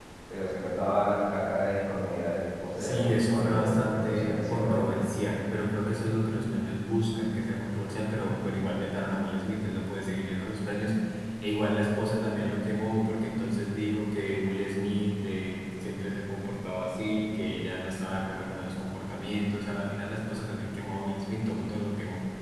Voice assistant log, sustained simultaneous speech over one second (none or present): present